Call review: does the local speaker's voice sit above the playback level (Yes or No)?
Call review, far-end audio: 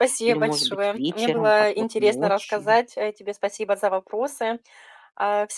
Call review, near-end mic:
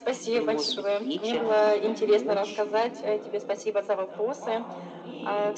No